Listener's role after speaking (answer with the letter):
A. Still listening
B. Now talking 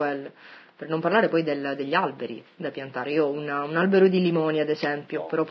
A